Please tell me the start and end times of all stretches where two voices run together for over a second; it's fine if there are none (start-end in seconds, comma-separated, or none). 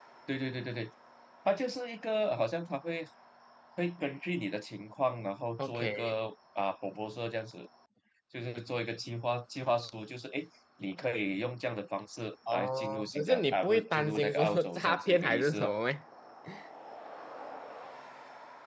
12.5-15.7